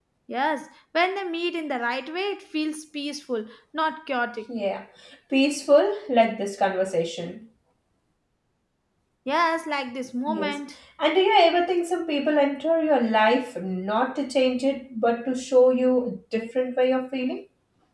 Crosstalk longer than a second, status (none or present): none